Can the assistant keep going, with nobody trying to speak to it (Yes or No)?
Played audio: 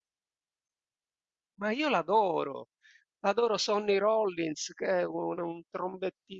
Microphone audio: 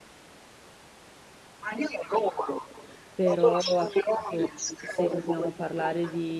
No